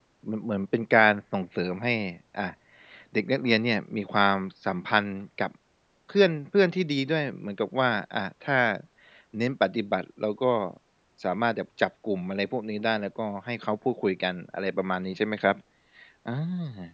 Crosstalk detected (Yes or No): No